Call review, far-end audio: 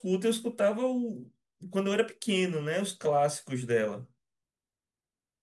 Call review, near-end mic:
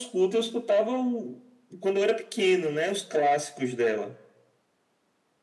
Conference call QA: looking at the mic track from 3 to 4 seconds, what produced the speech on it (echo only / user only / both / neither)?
echo only